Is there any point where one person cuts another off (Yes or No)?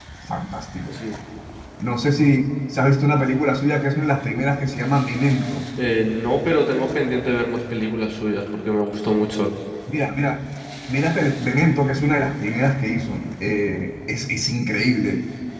No